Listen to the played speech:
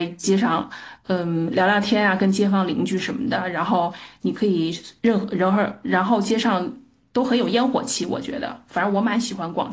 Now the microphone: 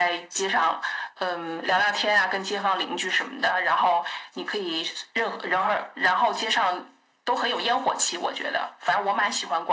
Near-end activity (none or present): none